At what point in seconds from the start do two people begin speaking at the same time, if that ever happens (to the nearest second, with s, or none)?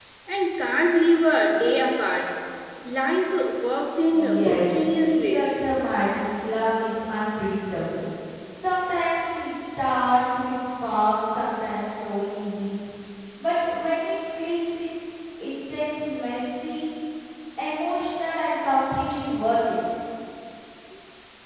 4 s